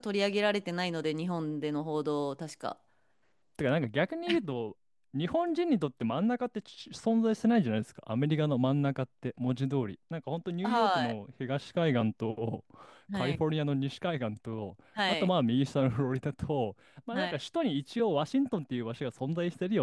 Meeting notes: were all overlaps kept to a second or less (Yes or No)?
Yes